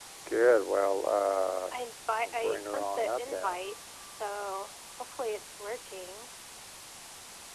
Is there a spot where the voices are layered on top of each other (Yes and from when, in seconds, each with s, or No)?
Yes, from 2.2 s